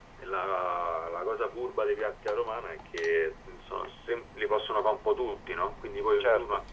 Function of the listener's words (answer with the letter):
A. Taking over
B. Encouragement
B